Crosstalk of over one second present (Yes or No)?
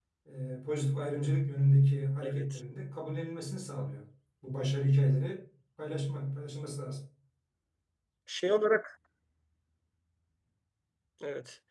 No